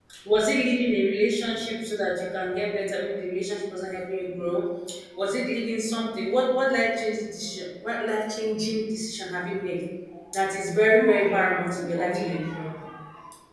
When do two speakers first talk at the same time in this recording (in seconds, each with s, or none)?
10.9 s